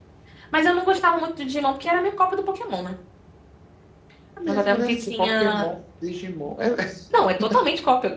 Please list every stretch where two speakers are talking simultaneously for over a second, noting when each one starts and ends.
4.5-5.7

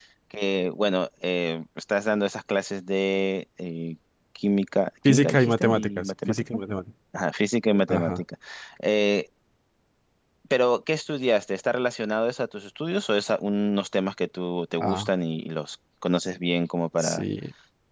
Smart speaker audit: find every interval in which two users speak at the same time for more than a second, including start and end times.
5.0-6.4

